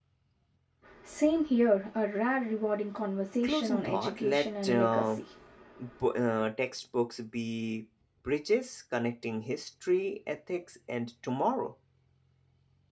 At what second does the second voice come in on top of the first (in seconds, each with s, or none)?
3.4 s